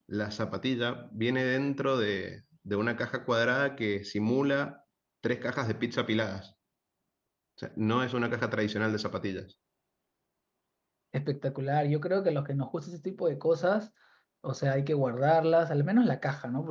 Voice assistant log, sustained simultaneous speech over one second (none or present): none